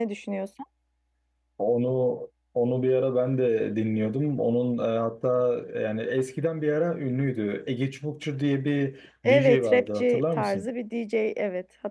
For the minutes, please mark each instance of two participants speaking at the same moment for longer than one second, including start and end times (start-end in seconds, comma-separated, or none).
9.2-10.7